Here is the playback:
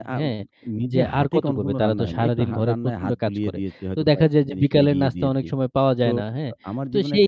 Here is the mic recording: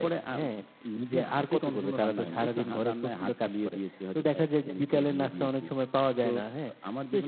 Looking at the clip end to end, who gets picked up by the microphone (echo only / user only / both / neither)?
echo only